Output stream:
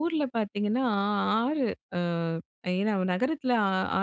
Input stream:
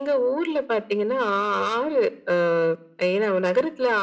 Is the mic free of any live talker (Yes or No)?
Yes